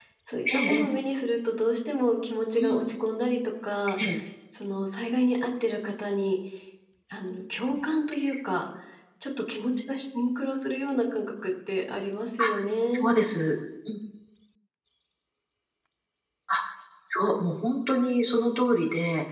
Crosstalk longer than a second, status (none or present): none